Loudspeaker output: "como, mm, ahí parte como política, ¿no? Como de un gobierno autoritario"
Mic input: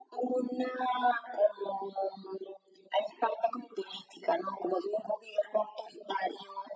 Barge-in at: none

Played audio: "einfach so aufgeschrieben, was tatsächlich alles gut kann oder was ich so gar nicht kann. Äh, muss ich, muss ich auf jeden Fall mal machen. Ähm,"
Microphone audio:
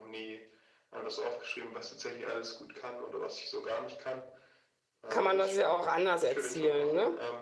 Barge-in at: 5 s

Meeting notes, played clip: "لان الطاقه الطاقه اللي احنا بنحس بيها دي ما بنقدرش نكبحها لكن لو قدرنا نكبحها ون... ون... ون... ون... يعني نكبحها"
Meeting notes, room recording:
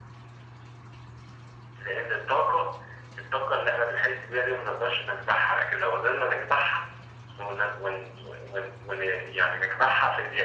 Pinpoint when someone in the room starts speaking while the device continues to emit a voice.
none

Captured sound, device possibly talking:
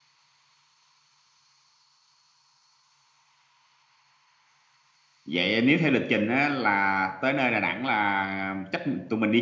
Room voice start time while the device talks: 5 s

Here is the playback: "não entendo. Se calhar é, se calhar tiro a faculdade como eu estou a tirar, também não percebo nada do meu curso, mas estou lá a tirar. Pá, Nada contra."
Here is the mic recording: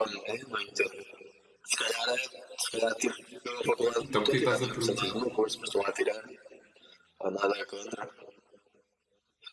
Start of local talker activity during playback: 4 s

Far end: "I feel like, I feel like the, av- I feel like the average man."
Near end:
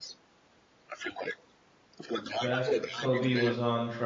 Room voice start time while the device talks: 2 s

